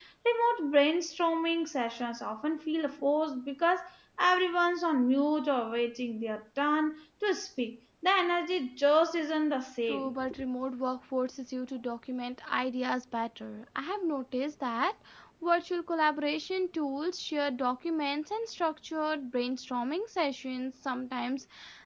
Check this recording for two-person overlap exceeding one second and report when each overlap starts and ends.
none

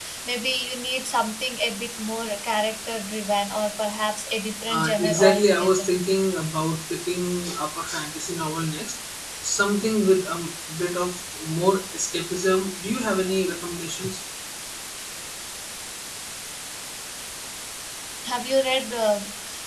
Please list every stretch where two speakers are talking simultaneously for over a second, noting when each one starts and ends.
4.7-5.9

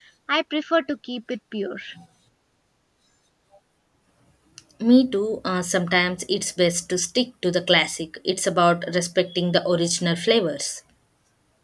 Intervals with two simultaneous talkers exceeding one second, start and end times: none

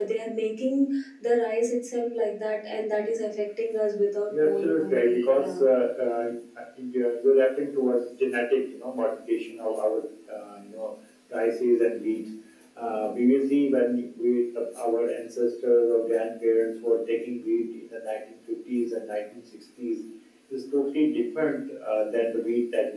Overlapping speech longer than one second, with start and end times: 4.3-5.6

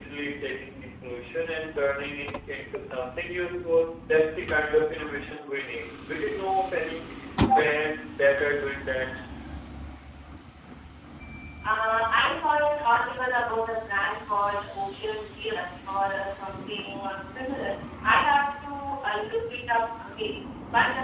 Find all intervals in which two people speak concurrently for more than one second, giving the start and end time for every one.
none

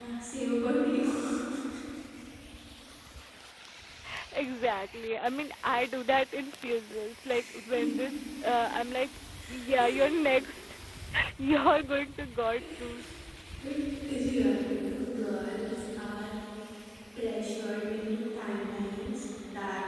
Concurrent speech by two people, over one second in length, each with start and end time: none

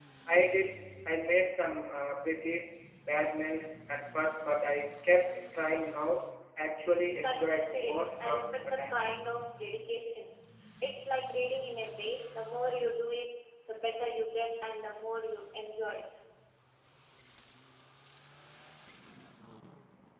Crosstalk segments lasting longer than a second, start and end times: 7.2-9.0

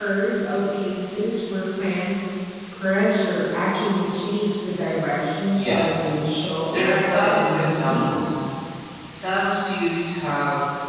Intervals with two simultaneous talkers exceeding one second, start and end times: 6.7-8.1

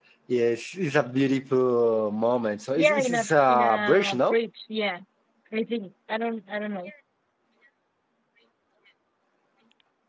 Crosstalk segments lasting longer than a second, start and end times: 2.8-4.4

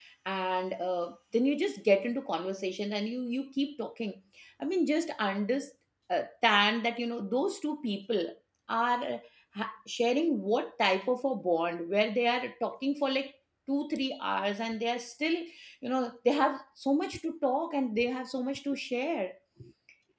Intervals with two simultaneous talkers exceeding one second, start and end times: none

